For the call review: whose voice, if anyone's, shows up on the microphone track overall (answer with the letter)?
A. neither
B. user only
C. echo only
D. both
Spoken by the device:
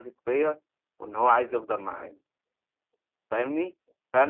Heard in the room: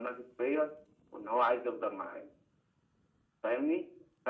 C